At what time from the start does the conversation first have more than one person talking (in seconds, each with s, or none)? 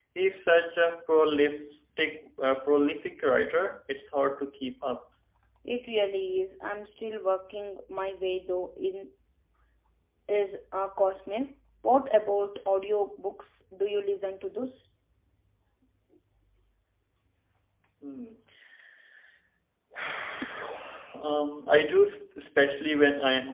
none